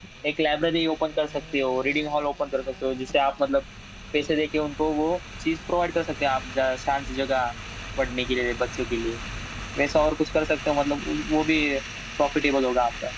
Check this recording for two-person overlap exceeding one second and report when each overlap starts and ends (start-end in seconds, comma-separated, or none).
none